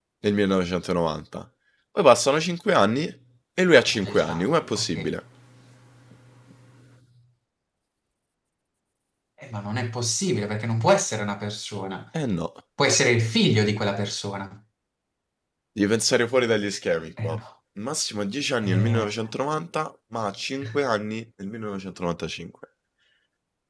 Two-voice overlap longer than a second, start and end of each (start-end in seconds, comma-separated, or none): 3.7-4.9